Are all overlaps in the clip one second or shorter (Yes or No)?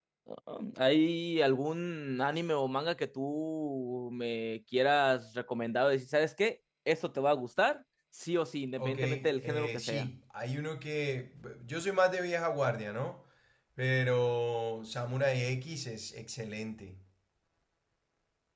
No